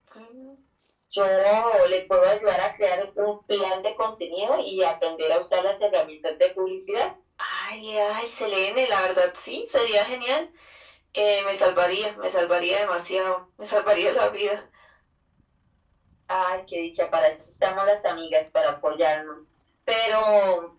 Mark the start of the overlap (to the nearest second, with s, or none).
none